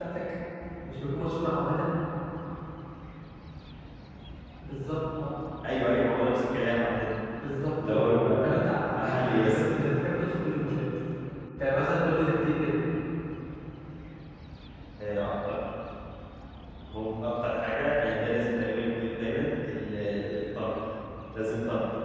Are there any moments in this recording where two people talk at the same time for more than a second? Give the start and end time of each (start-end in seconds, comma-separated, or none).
7.9-9.8